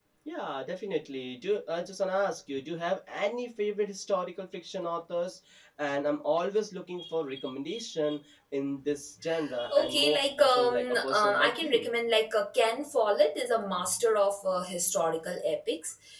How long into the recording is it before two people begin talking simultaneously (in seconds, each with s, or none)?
9.7 s